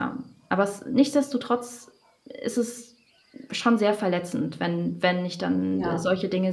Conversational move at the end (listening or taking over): listening